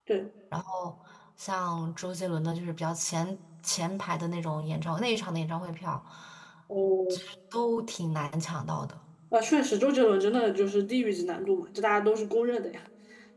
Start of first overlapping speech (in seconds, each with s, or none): none